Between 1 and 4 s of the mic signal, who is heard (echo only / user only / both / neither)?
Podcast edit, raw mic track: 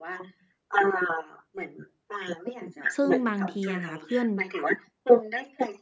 both